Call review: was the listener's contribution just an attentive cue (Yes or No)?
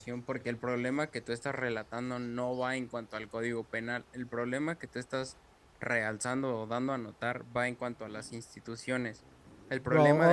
No